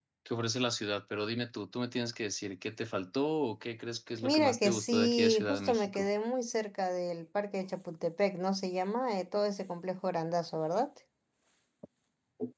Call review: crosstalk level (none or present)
present